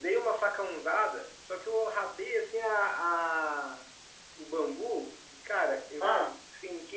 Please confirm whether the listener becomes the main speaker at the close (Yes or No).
No